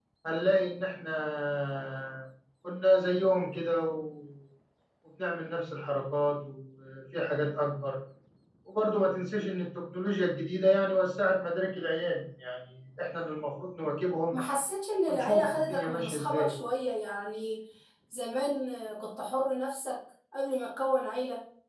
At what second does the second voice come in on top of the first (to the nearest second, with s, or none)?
15 s